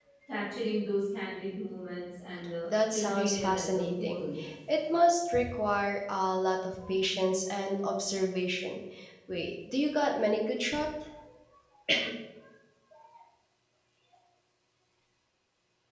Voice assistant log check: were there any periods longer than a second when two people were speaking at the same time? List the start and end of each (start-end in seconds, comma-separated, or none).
2.6-4.2